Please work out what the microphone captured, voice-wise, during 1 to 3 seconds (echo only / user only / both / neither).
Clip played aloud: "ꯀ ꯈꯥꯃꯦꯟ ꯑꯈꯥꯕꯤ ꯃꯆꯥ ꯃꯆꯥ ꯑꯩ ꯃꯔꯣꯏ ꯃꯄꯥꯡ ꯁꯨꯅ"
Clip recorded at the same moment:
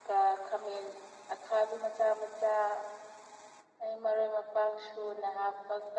echo only